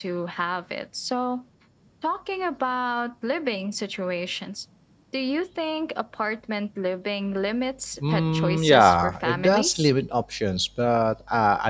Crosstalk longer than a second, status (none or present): present